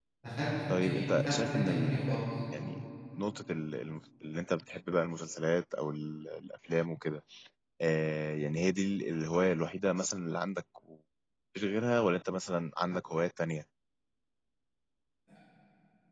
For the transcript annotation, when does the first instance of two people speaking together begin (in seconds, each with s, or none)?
0.8 s